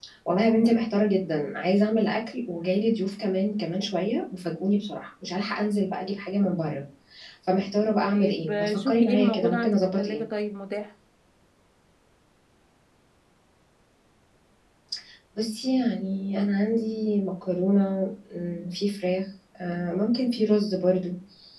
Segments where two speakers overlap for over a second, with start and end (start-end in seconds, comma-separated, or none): 8.0-10.2